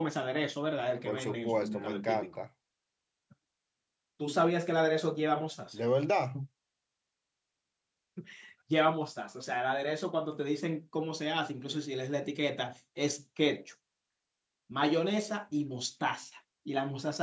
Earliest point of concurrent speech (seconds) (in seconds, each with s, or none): 1.1 s